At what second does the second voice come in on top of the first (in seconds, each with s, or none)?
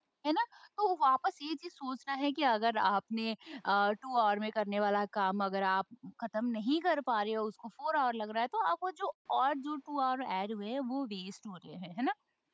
none